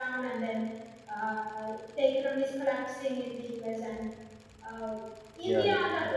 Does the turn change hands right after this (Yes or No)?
No